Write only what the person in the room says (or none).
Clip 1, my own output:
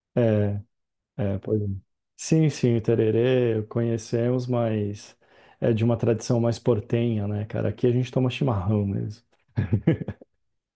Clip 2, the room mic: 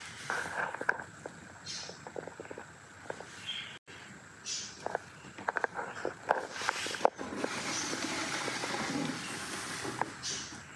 none